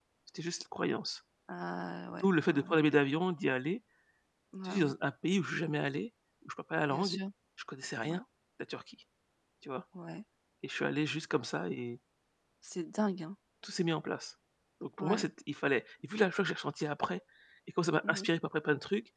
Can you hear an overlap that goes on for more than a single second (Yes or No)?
No